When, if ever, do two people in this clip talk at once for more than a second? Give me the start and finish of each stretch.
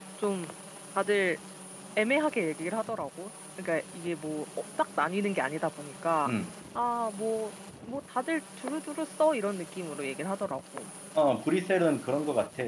none

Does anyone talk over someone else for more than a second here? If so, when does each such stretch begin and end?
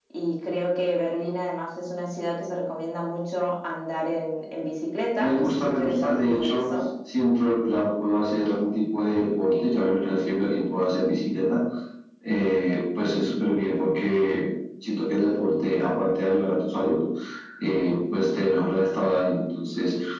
5.2-6.7

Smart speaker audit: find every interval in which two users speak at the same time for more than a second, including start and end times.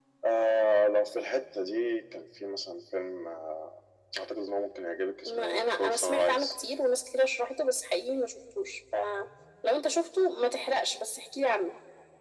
5.2-6.5

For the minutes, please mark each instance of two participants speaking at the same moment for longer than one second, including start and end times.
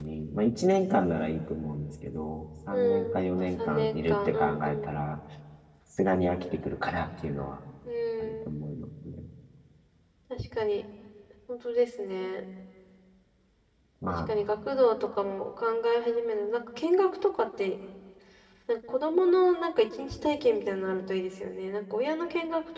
2.7-4.9

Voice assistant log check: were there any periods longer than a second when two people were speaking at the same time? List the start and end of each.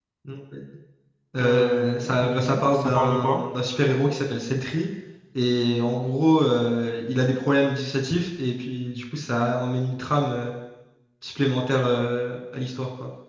1.4-3.4

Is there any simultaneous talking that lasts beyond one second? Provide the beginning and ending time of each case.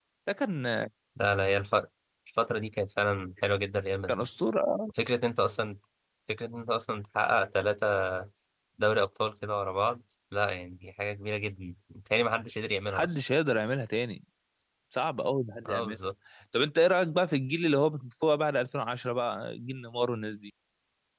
none

